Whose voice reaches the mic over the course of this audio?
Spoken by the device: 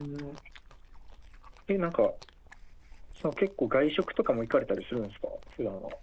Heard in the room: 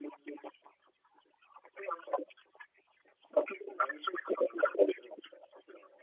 echo only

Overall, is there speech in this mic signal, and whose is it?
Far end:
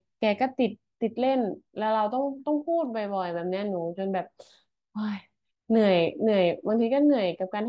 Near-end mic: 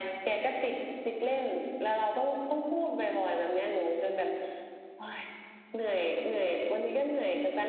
echo only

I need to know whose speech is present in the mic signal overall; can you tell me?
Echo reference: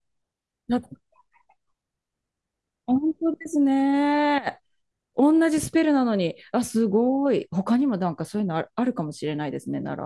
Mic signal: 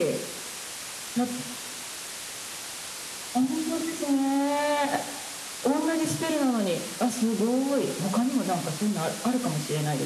echo only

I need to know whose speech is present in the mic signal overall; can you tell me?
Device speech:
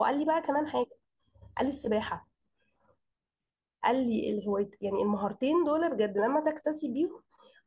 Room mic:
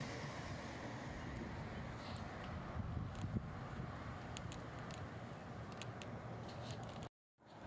neither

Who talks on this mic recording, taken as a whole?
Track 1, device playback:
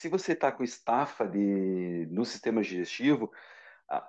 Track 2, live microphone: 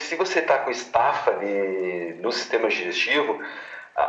echo only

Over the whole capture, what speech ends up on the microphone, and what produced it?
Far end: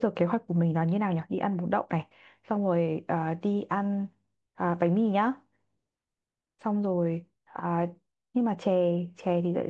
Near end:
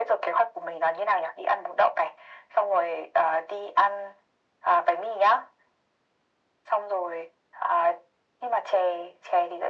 echo only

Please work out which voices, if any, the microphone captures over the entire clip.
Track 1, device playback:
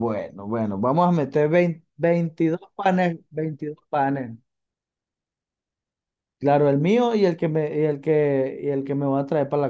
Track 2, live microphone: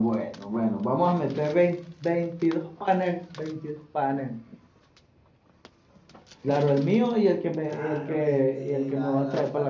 both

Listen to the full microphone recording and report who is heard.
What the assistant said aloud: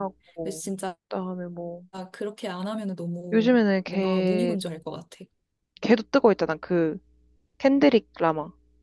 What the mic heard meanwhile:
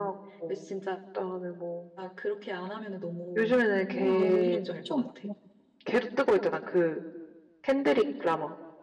both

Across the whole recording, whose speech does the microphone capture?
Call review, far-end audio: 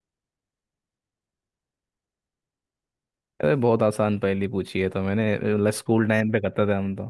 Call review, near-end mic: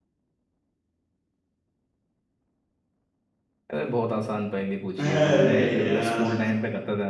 both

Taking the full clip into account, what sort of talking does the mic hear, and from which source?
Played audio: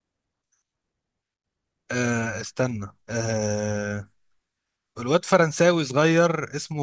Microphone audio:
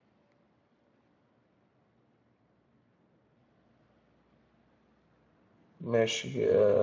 user only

